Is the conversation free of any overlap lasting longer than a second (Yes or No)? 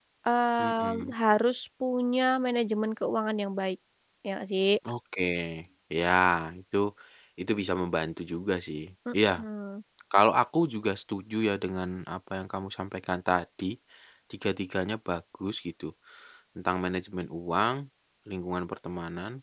Yes